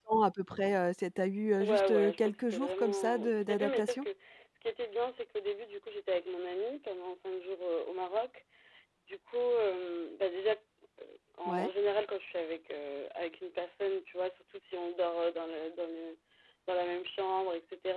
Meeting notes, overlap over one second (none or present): present